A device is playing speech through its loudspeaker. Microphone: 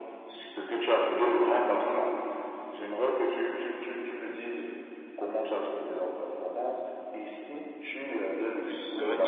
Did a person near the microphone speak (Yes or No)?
Yes